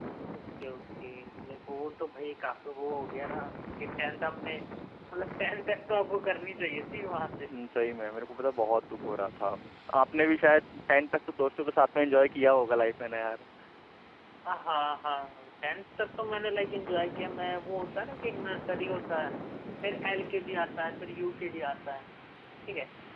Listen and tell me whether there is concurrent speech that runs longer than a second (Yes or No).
No